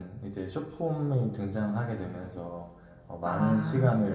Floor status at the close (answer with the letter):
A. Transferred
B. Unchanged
B